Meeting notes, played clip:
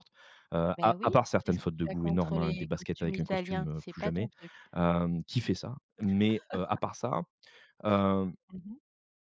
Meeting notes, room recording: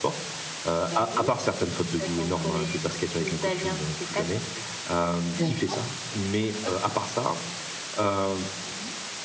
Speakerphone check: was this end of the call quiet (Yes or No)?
No